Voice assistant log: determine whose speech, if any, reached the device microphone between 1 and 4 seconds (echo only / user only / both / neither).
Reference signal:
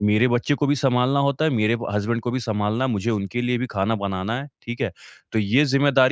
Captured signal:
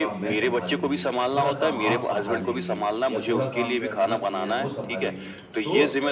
both